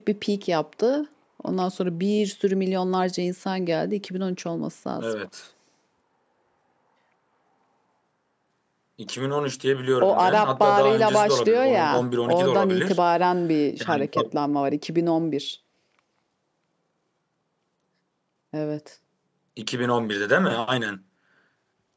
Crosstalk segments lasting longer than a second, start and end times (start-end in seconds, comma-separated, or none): 10.0-13.0